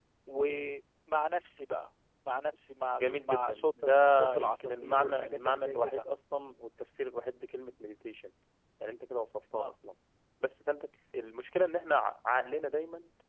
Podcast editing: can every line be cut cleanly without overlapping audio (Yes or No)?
No